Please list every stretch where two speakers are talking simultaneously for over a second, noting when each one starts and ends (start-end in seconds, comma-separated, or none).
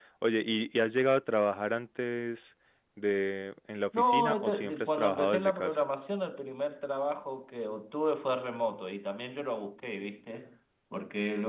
4.0-5.8